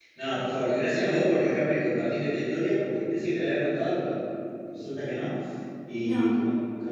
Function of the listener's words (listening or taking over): listening